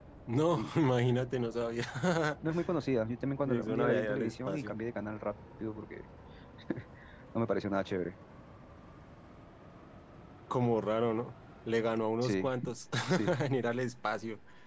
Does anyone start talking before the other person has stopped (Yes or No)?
Yes